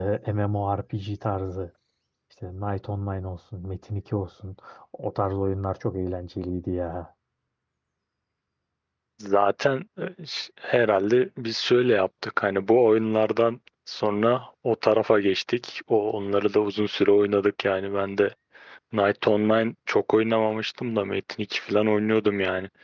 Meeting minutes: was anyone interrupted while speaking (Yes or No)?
No